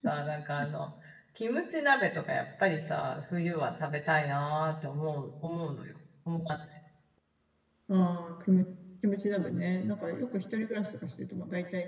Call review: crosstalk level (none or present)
none